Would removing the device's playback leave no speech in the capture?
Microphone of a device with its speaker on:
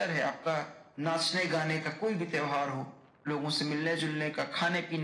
Yes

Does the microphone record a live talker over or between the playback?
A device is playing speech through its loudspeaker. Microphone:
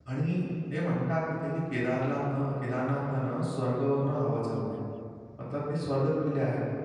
Yes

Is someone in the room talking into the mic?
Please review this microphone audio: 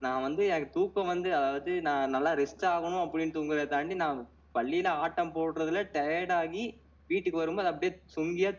No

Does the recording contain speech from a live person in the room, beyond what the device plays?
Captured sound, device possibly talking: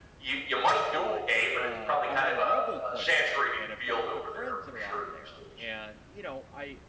Yes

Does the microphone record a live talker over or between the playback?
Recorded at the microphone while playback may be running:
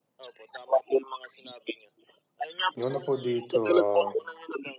Yes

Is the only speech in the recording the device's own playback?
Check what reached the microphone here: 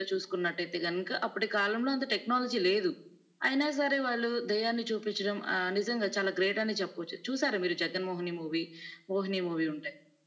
Yes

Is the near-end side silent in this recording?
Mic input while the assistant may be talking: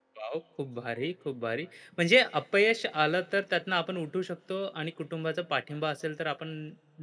No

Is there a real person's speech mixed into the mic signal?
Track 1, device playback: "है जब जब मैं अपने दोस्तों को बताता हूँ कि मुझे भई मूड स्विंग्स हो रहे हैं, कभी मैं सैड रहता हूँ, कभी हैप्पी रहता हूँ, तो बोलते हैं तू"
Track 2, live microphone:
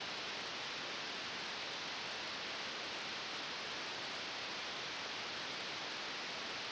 No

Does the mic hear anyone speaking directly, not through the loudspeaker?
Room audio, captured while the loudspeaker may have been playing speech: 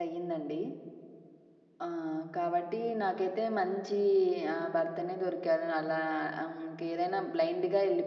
Yes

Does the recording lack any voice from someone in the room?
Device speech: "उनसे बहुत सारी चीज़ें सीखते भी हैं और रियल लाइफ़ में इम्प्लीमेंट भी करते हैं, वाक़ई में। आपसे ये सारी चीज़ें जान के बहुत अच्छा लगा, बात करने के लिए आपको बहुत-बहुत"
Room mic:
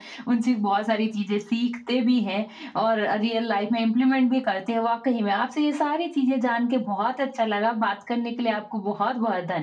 Yes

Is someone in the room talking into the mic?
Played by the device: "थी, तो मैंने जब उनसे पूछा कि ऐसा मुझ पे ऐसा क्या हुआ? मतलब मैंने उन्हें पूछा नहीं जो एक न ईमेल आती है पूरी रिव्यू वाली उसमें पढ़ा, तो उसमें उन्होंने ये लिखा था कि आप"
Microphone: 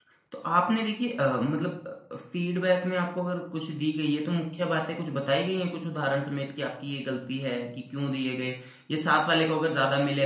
Yes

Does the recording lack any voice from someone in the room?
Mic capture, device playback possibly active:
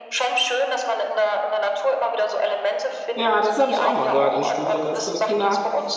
No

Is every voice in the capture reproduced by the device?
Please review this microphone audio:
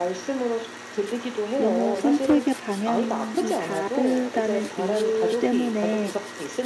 No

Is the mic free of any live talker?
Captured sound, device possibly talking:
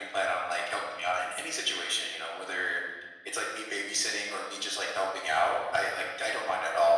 Yes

